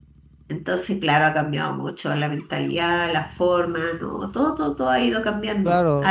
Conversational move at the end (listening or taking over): taking over